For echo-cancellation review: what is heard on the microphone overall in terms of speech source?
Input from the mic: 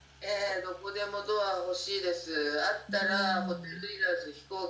both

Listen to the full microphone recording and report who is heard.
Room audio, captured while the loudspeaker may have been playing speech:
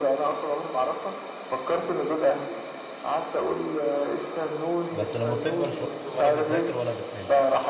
both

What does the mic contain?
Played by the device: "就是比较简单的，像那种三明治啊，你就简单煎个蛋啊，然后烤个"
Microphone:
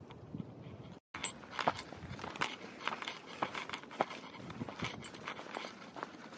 neither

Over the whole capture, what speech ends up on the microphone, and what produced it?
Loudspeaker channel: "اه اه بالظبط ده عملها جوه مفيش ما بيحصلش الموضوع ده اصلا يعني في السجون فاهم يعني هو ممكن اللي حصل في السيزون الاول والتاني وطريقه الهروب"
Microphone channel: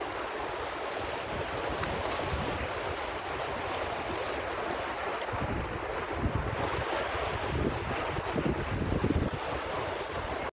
neither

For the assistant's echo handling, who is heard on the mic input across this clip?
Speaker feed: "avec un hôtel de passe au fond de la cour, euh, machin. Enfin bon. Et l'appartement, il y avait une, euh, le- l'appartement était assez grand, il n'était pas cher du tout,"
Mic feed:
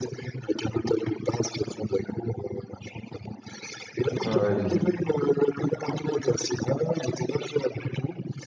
both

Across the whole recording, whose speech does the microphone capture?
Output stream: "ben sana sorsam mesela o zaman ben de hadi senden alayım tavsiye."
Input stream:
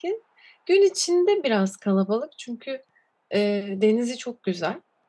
user only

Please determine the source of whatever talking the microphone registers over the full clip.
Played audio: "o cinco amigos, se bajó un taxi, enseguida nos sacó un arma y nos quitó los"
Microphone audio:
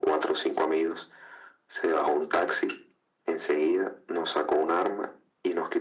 echo only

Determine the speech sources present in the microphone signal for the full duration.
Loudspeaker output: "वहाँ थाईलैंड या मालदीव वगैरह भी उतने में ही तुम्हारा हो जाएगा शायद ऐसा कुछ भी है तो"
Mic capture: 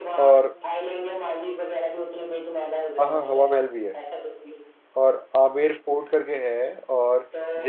both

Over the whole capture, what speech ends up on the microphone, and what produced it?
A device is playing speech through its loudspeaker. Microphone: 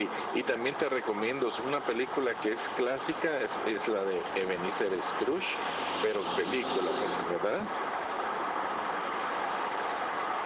echo only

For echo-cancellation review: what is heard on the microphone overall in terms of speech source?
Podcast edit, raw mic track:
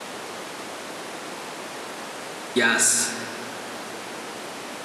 user only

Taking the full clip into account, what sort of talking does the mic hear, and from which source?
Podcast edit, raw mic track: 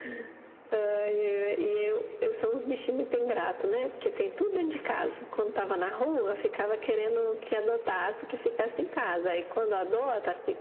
echo only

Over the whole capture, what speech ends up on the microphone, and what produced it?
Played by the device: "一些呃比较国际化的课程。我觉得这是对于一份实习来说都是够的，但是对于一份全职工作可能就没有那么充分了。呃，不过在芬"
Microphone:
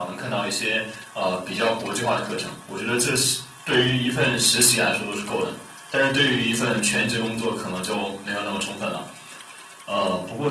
echo only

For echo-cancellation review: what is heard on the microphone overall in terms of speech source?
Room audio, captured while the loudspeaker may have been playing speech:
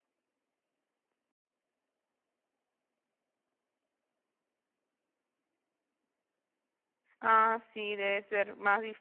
user only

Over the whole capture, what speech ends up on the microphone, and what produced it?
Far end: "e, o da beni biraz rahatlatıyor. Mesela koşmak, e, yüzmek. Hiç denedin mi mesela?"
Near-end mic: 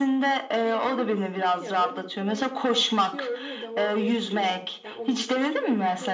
both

